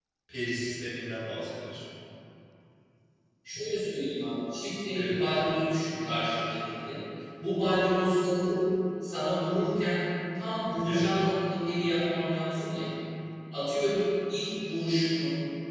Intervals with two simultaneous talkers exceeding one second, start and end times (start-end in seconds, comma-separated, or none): none